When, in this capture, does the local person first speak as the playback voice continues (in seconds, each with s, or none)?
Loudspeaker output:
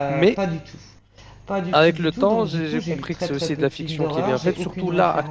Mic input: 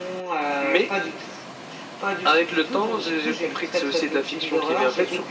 none